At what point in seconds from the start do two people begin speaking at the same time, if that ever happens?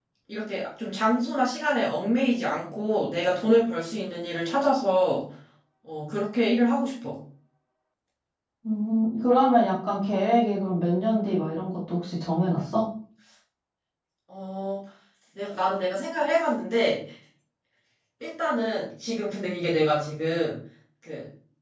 none

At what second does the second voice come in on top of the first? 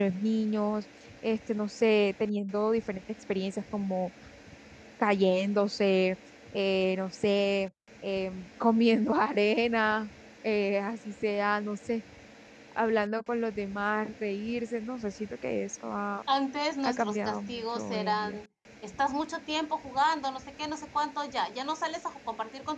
16.8 s

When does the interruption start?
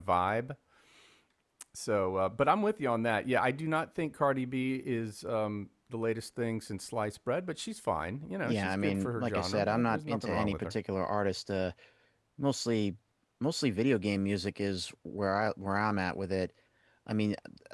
8.4 s

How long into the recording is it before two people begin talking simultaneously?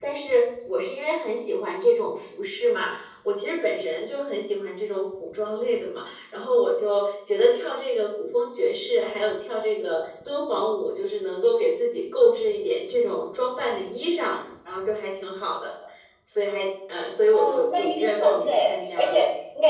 17.3 s

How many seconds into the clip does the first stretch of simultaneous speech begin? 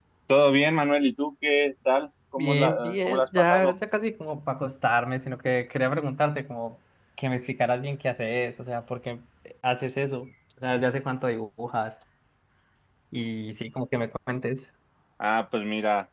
2.4 s

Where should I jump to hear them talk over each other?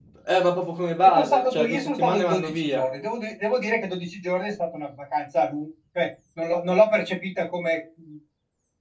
1.2 s

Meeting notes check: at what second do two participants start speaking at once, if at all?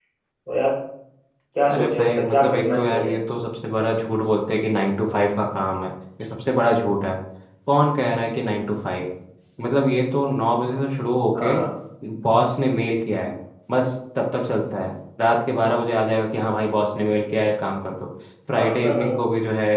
1.7 s

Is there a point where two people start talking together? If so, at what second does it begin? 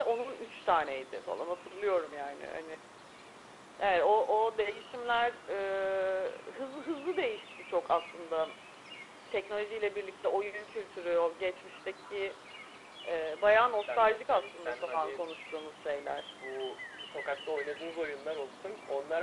13.7 s

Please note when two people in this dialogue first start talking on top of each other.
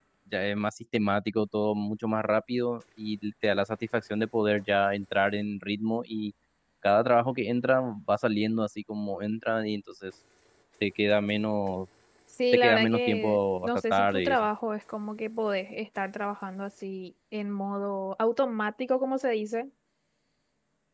12.5 s

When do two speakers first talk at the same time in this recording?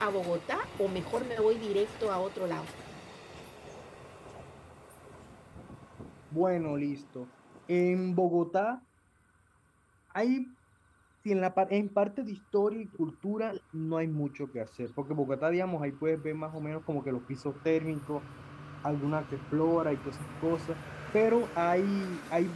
none

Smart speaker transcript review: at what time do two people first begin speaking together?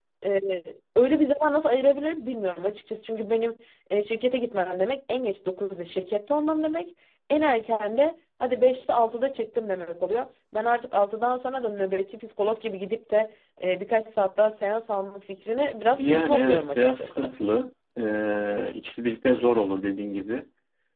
15.9 s

